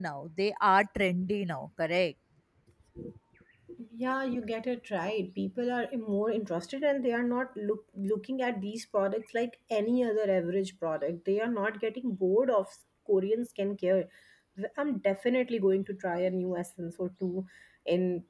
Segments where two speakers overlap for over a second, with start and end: none

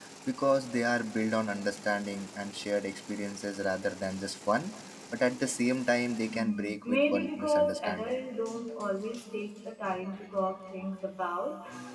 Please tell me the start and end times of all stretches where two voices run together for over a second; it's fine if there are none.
6.3-8.2

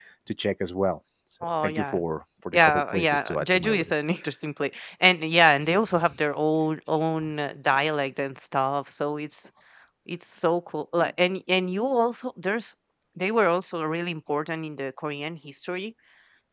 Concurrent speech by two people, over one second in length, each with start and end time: 2.5-4.0

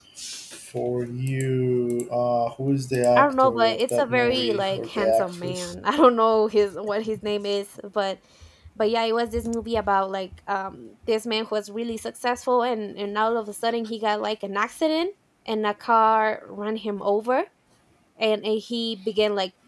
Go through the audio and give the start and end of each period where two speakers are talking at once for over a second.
3.1-5.7

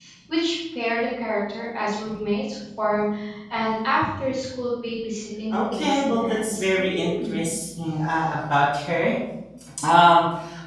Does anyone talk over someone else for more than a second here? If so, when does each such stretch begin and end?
5.5-7.4

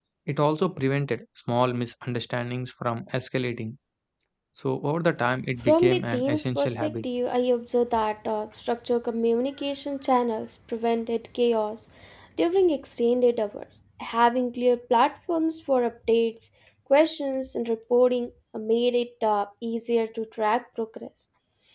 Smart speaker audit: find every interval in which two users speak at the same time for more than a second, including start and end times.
5.6-7.0

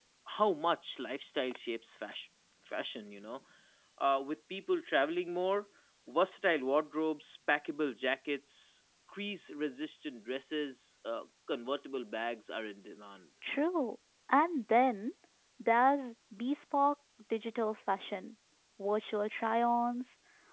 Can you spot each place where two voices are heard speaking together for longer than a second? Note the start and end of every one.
none

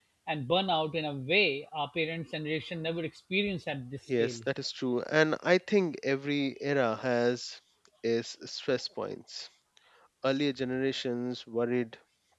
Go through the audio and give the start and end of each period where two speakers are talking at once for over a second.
none

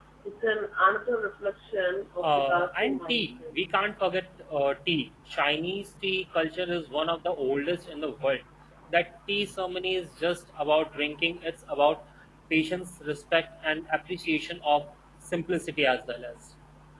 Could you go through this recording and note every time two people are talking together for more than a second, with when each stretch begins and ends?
2.2-3.5

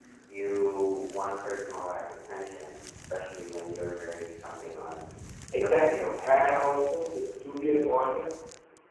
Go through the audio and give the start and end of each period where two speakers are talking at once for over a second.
5.5-6.8

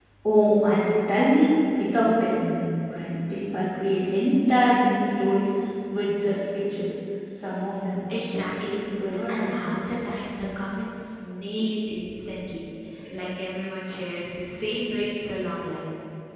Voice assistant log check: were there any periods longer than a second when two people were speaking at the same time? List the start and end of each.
8.1-9.8

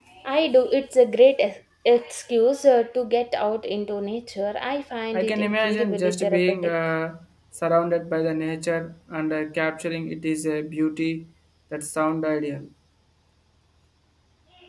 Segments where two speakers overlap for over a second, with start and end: 5.1-6.7

